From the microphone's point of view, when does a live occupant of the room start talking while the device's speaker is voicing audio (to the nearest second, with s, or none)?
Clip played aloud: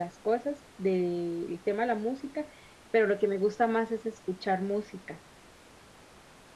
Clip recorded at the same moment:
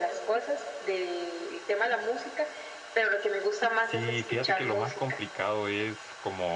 4 s